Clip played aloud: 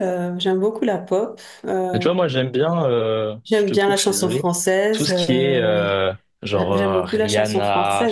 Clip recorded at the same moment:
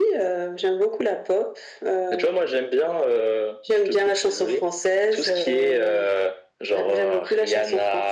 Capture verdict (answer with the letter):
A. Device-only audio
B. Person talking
A